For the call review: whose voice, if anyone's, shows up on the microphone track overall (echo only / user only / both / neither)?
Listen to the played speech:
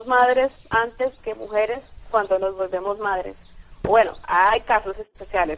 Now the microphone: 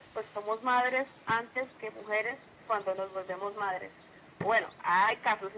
echo only